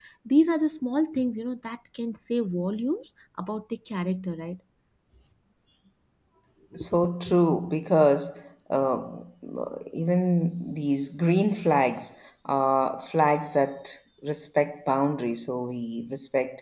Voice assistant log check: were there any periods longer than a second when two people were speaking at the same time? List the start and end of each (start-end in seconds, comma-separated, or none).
none